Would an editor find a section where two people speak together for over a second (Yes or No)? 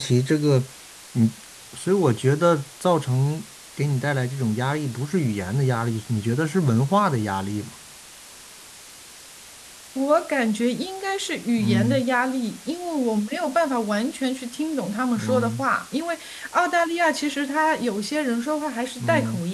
No